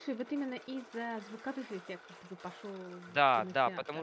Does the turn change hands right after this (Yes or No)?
Yes